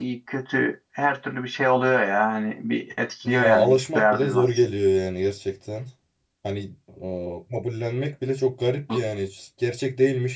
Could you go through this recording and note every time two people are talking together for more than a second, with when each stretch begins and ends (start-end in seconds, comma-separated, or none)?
3.2-4.5